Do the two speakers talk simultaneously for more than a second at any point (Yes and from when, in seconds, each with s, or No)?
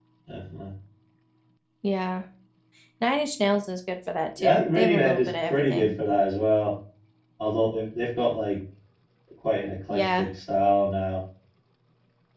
Yes, from 4.4 s